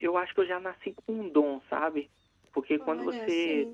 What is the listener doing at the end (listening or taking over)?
listening